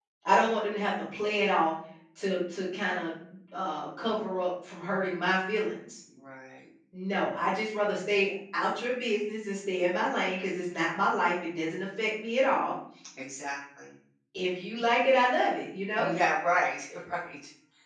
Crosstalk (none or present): none